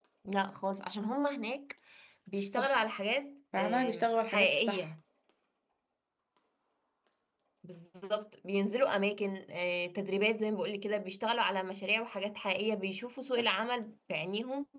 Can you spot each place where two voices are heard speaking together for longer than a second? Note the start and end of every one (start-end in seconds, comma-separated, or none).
3.6-4.9